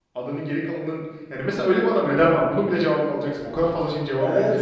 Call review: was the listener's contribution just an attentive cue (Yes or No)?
No